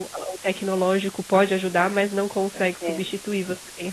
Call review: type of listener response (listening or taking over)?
listening